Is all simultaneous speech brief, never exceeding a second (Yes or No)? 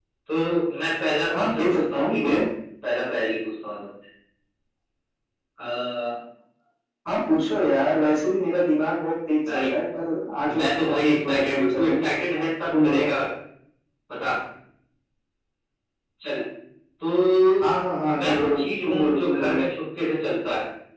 No